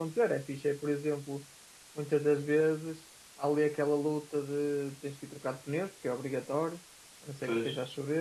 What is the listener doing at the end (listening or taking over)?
listening